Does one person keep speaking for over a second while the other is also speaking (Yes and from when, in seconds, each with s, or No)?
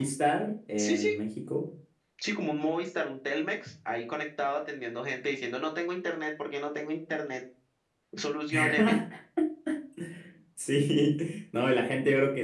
No